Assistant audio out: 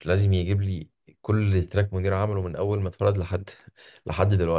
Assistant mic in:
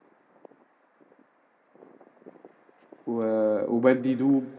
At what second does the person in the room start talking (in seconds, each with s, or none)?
3.0 s